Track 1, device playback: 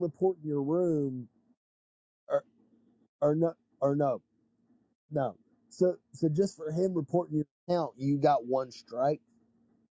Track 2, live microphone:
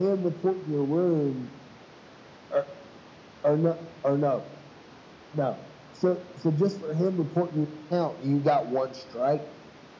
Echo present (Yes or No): Yes